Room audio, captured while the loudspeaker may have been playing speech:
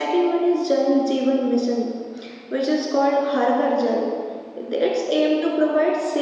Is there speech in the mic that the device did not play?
No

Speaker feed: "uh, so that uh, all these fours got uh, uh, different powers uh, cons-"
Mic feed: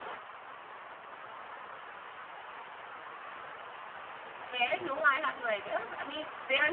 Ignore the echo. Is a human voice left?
Yes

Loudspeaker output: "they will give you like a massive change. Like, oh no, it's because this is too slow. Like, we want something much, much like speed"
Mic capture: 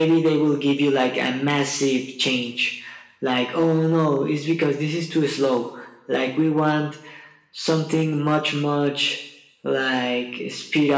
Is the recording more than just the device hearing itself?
No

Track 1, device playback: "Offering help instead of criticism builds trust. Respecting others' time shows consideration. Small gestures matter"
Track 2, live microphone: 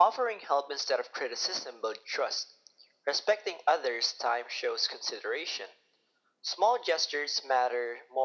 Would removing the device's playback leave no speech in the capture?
Yes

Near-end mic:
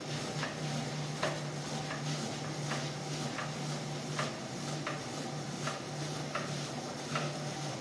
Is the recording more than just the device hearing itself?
No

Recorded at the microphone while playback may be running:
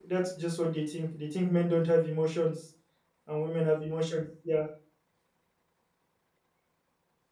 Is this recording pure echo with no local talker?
No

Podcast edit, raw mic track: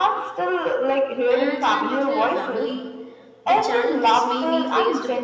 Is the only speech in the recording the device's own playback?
No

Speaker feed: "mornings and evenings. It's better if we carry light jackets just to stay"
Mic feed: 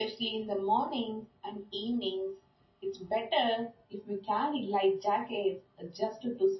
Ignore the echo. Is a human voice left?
No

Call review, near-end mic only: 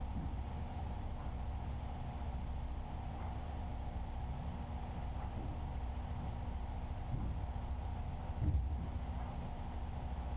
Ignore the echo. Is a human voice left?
No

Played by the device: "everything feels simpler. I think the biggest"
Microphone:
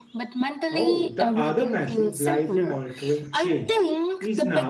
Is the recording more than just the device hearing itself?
Yes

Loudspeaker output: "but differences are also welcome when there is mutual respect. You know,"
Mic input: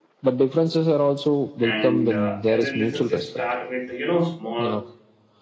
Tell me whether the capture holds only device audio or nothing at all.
No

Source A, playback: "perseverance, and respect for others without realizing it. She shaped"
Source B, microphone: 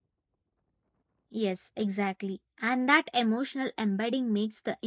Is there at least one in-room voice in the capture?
Yes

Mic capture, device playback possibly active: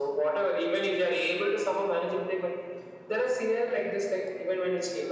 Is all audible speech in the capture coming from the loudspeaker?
Yes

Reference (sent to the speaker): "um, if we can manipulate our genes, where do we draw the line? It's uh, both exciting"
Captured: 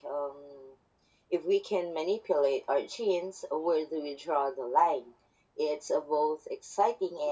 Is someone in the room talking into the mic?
No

